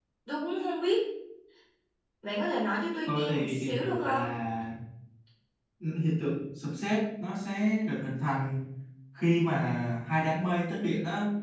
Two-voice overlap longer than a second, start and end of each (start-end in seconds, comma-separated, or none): 3.1-4.3